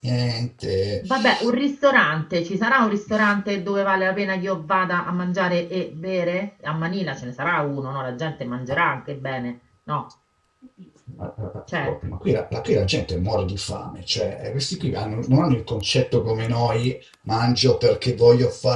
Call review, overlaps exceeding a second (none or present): none